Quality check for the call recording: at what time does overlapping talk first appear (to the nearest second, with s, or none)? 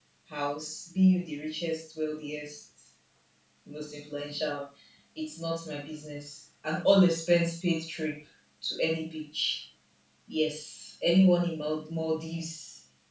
none